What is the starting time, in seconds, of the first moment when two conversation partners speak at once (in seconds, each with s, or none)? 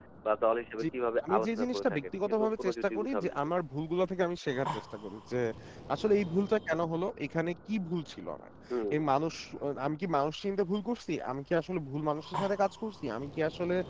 1.3 s